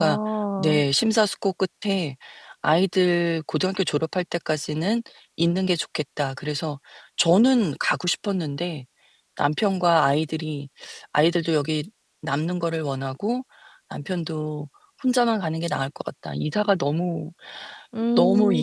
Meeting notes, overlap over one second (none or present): none